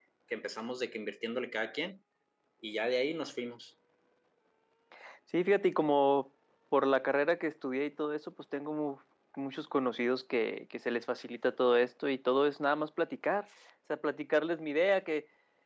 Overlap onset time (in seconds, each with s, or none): none